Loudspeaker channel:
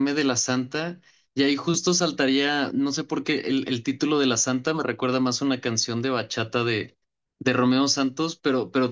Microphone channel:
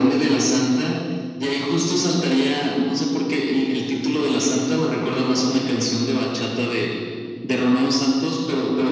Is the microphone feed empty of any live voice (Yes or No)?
Yes